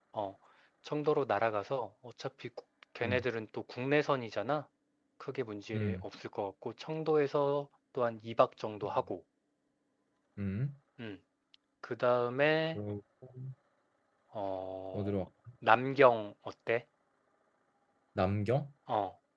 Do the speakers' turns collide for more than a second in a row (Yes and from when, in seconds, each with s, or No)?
No